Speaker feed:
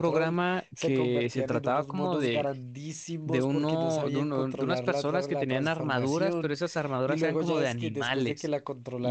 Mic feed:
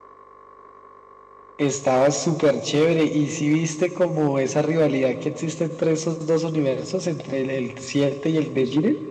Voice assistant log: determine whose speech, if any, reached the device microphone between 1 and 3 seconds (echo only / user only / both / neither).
user only